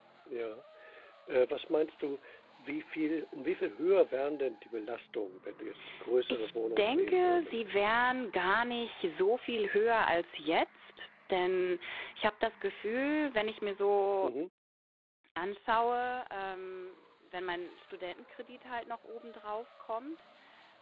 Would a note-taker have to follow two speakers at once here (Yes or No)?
Yes